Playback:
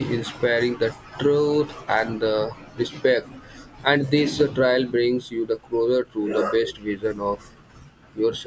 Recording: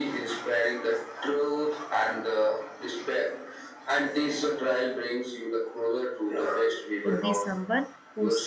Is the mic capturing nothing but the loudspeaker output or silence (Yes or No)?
No